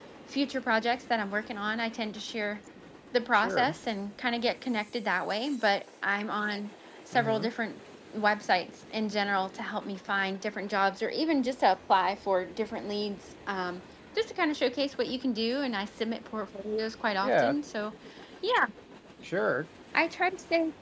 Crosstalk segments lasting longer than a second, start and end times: none

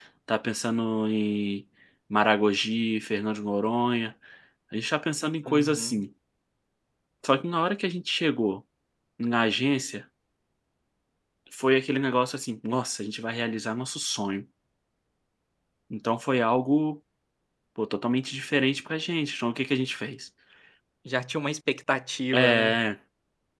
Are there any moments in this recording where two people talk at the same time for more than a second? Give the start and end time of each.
none

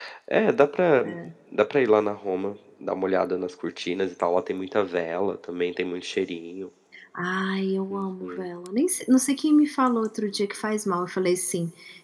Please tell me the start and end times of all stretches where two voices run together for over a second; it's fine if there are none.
none

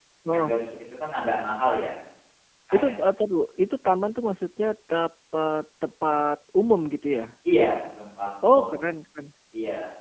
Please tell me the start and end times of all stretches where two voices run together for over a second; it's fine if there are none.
none

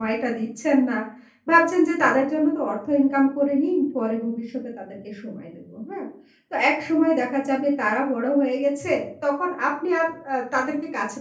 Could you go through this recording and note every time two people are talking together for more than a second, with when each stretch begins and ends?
none

